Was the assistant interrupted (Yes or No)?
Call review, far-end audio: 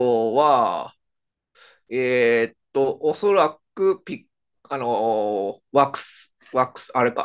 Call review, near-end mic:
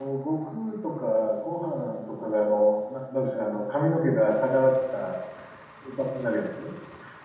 Yes